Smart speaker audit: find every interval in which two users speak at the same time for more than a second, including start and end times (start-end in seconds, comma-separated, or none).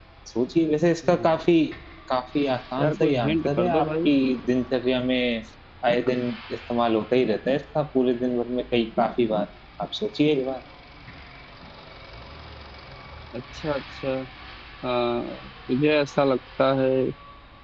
2.8-4.1